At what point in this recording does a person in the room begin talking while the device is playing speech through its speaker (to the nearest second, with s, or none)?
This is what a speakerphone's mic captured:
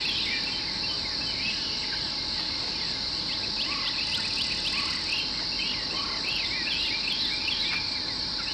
none